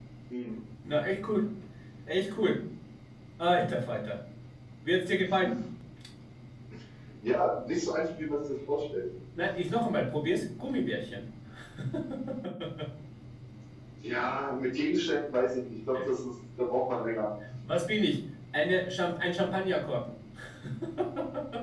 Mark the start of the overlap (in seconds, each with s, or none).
none